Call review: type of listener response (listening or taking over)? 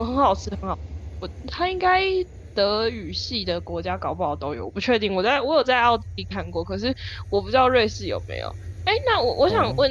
listening